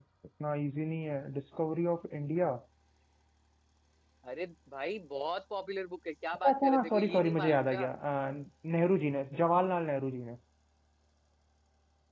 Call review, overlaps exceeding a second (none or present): present